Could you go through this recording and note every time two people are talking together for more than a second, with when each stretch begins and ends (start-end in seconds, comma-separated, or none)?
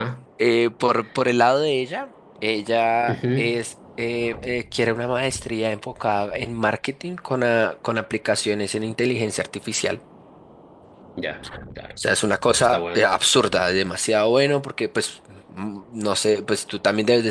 none